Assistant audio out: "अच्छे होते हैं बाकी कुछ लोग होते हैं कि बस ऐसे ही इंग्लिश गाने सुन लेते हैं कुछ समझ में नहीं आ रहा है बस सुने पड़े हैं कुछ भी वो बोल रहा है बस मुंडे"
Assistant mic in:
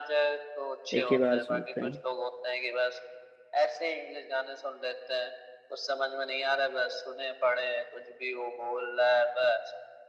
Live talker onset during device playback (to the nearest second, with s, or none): 1 s